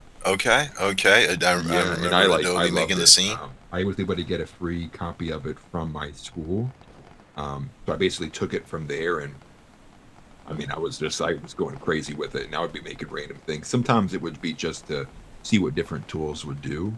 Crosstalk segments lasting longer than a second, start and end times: 1.6-3.4

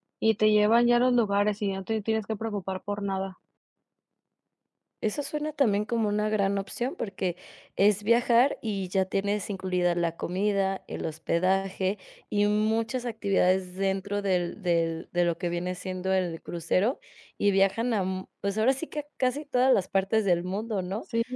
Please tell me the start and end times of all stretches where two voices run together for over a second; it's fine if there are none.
none

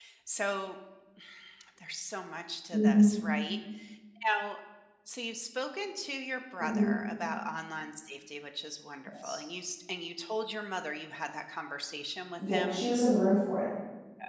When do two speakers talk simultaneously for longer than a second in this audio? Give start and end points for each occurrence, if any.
none

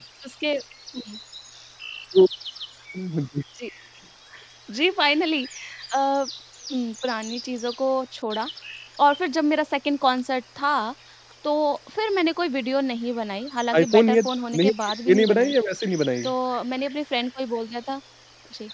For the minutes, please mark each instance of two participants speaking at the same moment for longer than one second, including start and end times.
none

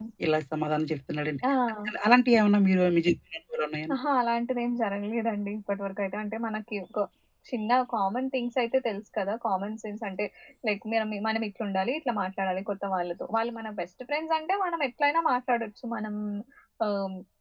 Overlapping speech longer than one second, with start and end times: none

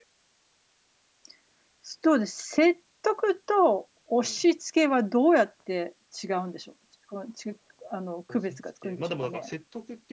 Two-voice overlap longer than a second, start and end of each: 8.3-9.5

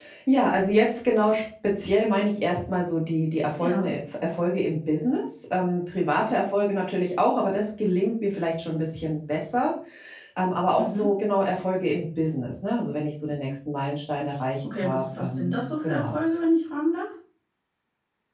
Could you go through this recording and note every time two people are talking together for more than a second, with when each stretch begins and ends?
14.8-16.2

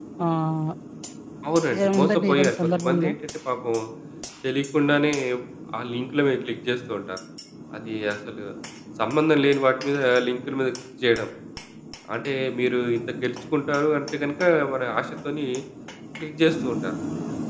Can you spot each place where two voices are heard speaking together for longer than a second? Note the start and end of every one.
1.8-3.1

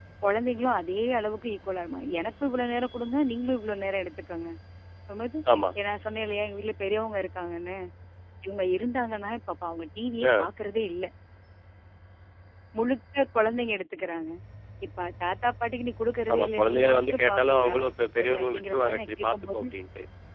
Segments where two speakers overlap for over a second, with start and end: 16.3-17.7, 18.2-19.6

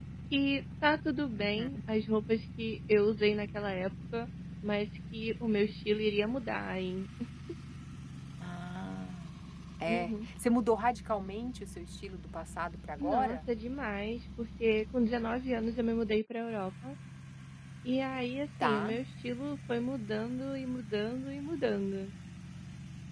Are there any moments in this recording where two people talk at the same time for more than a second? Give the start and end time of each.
none

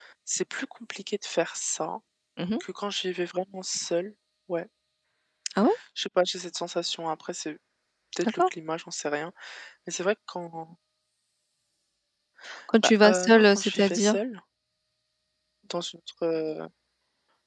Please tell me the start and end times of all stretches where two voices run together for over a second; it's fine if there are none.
12.8-14.2

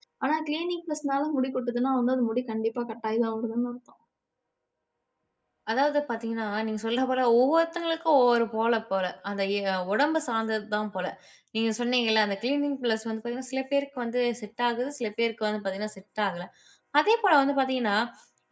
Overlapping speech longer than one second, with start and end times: none

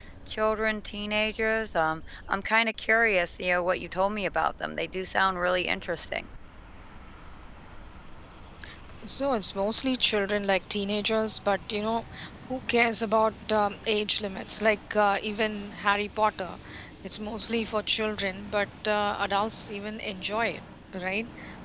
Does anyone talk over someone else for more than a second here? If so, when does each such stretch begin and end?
none

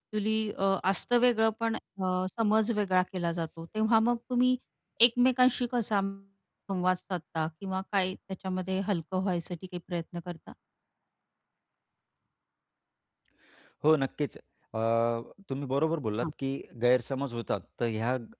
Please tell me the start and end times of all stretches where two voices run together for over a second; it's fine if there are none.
none

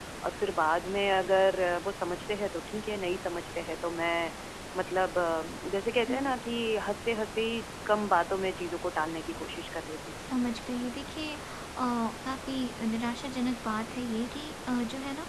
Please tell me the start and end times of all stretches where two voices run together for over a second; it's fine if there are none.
none

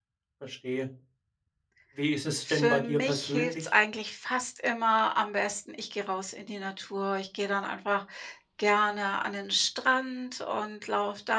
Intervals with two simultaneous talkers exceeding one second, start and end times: 2.5-3.7

